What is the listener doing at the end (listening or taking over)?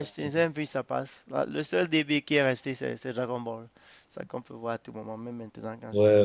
taking over